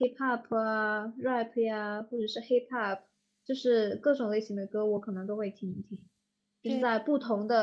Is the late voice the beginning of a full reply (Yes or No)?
No